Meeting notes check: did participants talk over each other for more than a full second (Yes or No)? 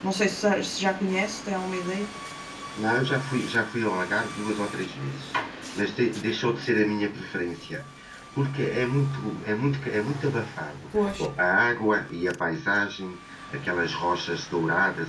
No